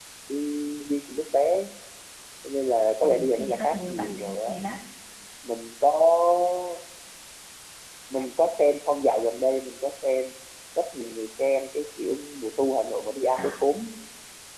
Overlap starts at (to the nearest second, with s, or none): 3 s